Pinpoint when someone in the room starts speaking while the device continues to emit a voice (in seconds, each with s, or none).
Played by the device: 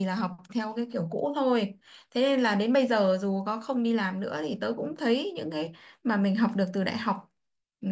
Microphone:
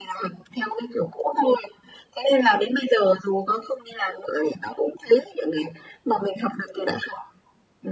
none